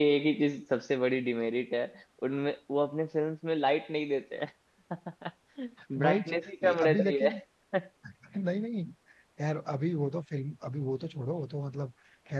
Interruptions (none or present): present